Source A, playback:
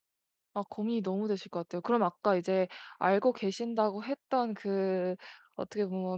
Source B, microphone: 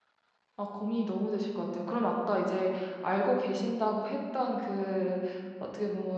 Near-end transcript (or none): none